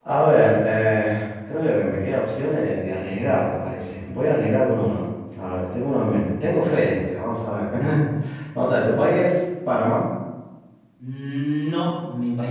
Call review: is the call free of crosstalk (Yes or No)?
Yes